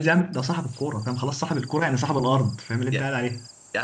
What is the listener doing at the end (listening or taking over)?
taking over